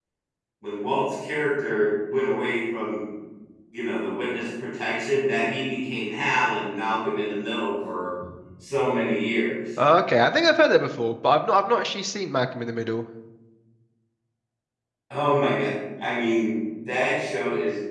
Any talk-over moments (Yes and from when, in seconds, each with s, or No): No